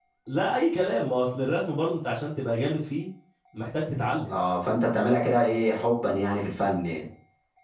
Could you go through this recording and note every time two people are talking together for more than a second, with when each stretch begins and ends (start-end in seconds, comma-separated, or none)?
none